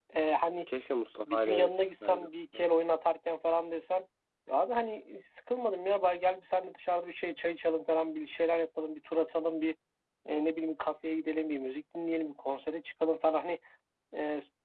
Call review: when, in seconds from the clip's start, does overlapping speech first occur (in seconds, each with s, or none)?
1.2 s